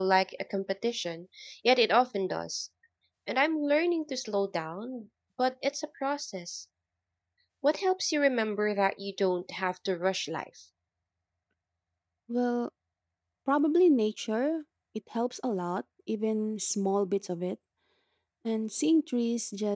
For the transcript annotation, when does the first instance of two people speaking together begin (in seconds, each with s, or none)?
none